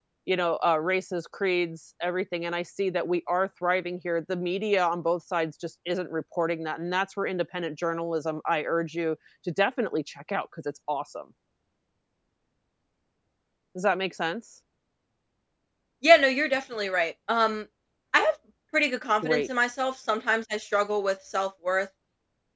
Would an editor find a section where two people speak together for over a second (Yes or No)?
No